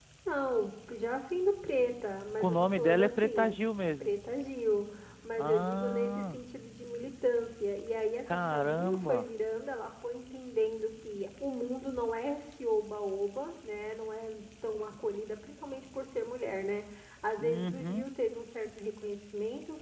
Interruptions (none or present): present